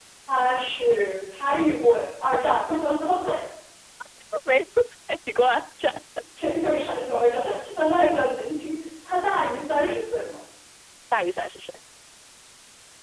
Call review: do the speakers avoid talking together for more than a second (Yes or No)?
Yes